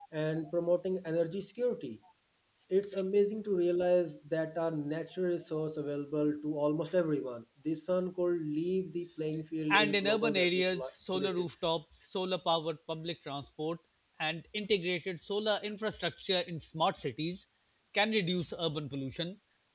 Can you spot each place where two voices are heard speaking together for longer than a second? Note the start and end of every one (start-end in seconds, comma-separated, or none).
9.7-11.5